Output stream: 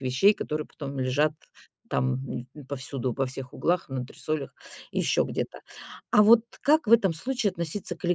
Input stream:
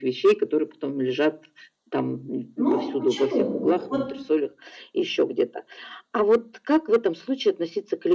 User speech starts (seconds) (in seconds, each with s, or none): 2.5 s